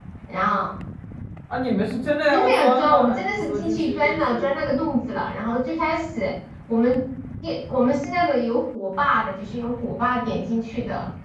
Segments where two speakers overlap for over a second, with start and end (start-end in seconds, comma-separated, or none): 2.3-4.6